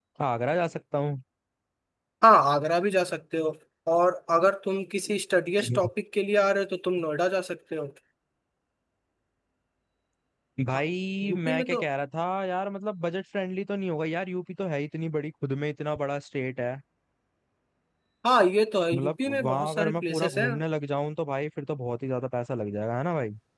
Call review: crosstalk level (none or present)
present